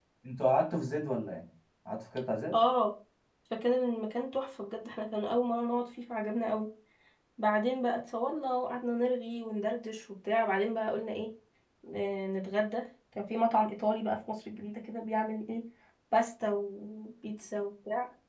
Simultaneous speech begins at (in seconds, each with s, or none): none